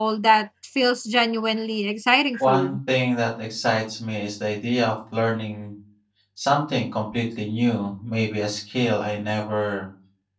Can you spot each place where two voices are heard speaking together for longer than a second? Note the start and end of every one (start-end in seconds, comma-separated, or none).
none